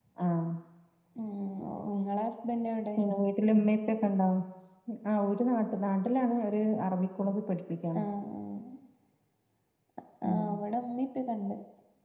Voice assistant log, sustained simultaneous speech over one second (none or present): none